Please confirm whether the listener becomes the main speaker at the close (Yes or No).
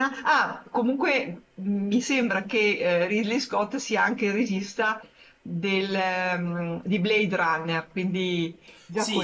Yes